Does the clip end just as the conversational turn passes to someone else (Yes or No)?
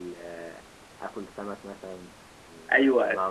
Yes